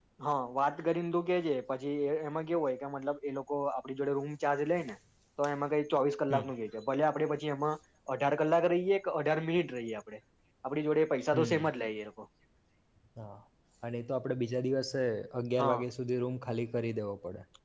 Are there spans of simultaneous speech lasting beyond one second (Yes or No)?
No